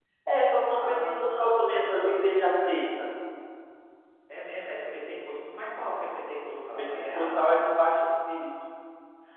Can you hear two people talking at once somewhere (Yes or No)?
Yes